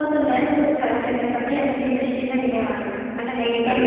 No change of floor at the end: No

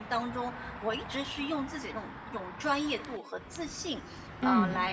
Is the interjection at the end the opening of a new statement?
No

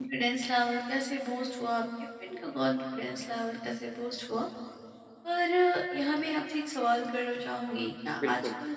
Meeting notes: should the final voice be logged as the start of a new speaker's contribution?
No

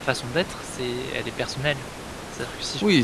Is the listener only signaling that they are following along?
No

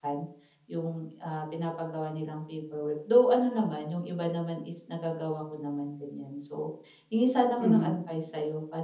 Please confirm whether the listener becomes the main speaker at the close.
No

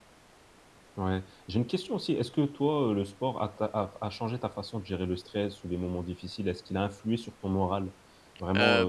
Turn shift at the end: Yes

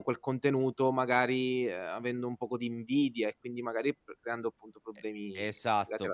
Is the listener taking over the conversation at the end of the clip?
Yes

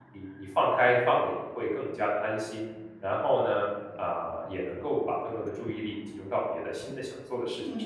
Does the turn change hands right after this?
Yes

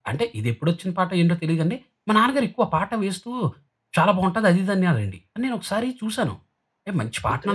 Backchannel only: Yes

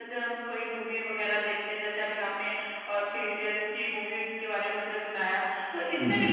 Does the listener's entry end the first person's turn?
No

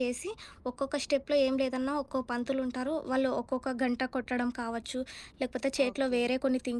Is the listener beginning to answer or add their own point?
No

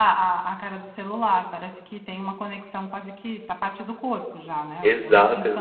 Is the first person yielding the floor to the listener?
Yes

